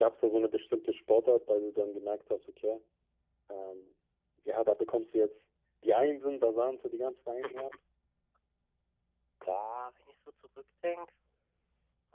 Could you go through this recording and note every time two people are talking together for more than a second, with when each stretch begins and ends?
none

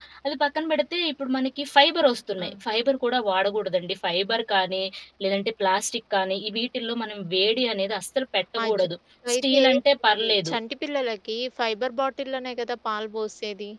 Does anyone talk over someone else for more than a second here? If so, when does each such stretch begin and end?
none

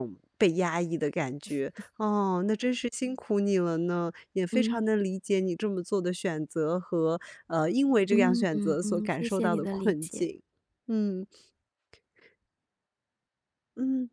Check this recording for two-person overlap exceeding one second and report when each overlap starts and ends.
8.1-10.2

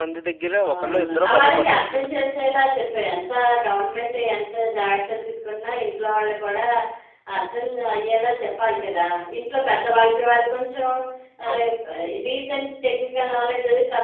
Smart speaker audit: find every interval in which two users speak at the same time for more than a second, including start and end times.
0.7-2.1

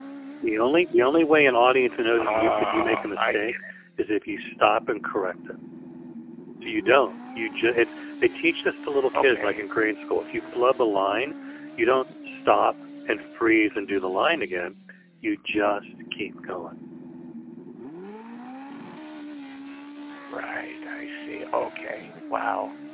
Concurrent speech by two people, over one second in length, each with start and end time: 2.1-3.5

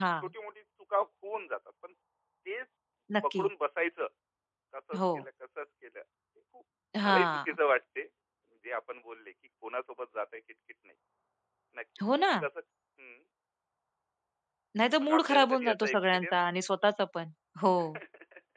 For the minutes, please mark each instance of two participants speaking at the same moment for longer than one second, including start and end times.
15.0-16.4

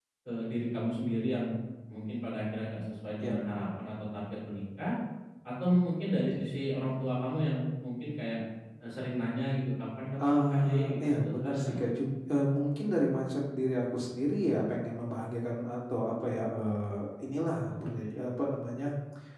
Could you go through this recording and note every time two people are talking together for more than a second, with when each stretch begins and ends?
10.2-11.8

